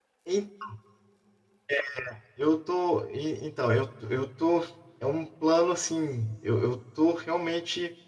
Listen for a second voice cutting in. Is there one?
No

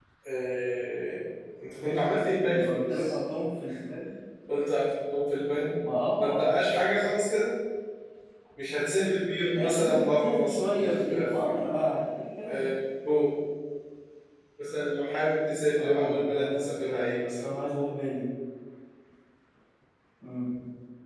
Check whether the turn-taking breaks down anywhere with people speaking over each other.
Yes, from 1.8 s

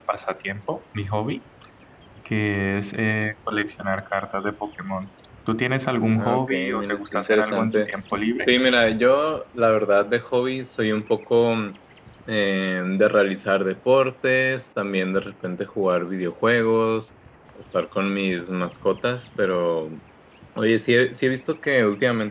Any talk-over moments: Yes, from 6.2 s

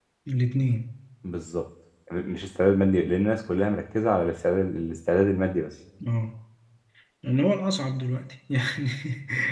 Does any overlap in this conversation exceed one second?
No

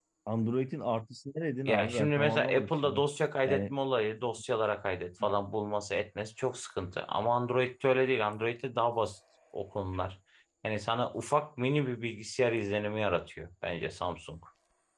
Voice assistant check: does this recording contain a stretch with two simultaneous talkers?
Yes, from 1.6 s

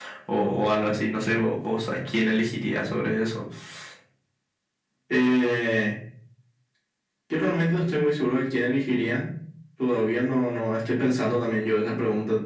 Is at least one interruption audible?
No

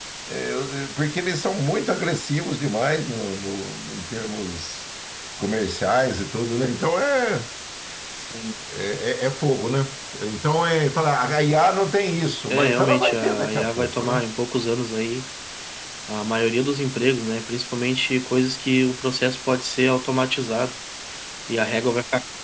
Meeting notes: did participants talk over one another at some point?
Yes, from 12.5 s

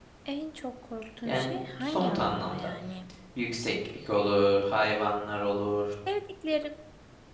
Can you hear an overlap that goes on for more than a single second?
Yes, from 1.2 s

